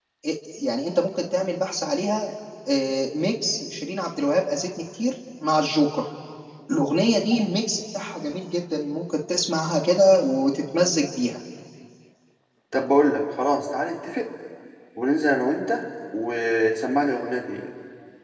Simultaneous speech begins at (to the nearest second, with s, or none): none